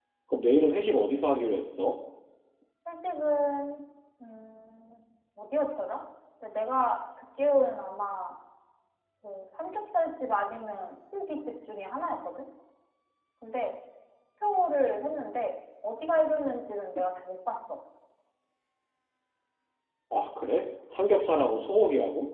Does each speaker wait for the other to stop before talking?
Yes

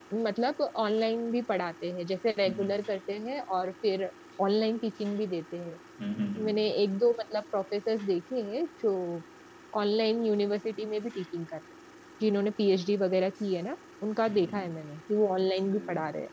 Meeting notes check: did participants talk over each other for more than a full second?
No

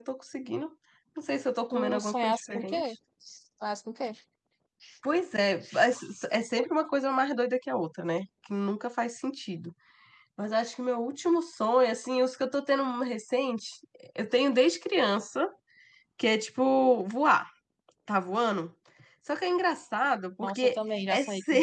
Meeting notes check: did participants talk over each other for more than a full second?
Yes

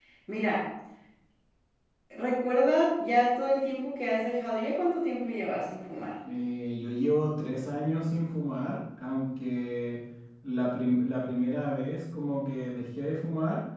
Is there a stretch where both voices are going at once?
No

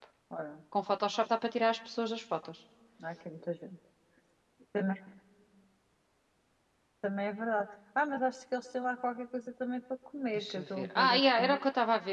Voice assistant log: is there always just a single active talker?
No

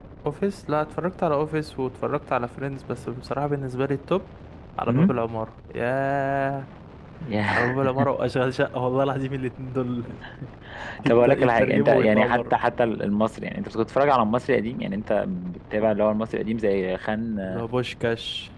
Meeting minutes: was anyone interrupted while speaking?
Yes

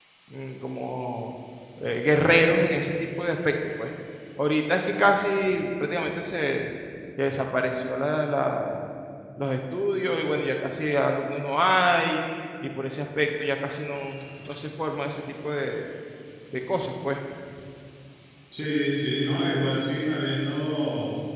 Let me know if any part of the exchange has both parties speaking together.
No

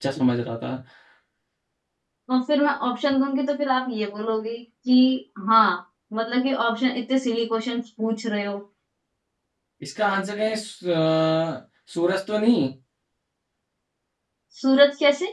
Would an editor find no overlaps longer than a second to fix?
Yes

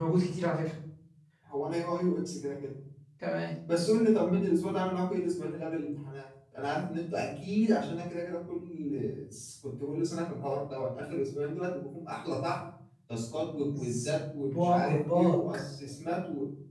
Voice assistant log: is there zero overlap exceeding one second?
No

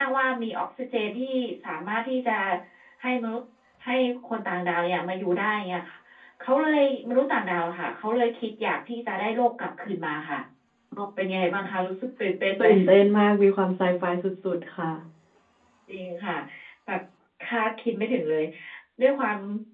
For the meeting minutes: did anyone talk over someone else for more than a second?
No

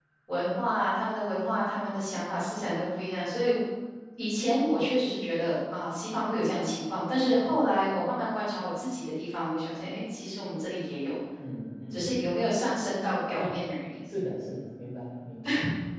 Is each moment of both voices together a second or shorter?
Yes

